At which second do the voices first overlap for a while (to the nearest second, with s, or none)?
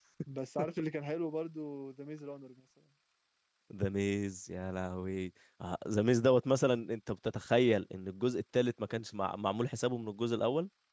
none